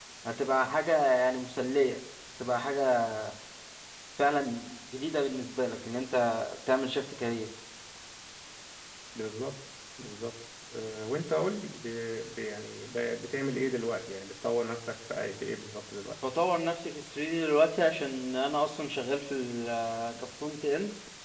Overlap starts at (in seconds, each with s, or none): none